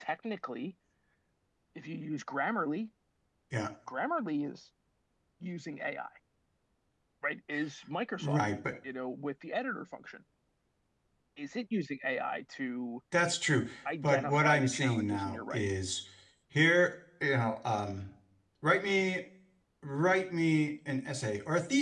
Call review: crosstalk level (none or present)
present